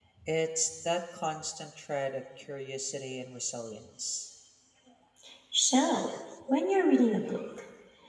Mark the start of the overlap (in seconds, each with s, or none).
none